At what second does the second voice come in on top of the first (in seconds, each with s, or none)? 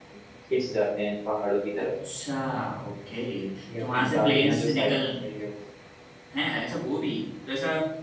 3.8 s